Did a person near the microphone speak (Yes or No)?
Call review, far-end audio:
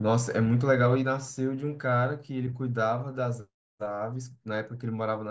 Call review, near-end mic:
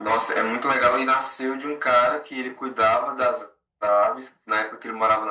No